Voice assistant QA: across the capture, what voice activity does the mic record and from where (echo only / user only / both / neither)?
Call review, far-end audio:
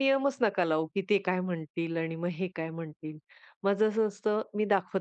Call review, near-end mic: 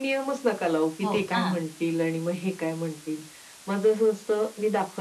both